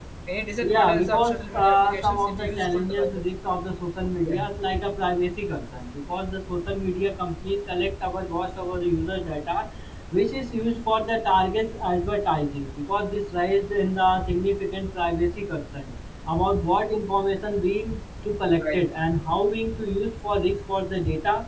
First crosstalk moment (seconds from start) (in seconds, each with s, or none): 0.6 s